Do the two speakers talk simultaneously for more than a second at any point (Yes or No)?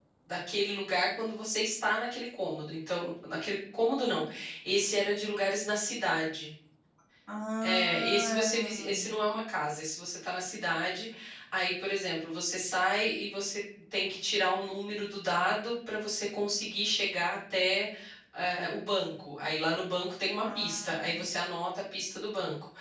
Yes